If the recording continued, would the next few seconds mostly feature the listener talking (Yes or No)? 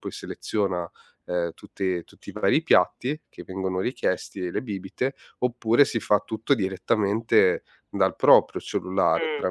No